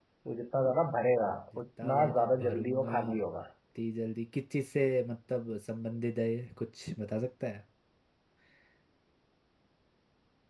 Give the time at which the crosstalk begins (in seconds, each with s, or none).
1.8 s